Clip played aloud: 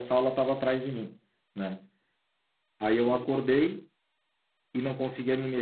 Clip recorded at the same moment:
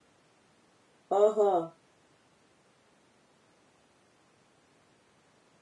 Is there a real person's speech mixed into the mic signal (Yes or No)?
Yes